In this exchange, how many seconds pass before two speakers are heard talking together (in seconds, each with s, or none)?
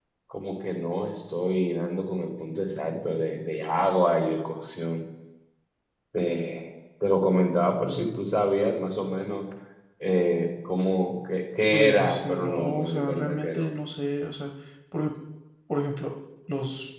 11.7 s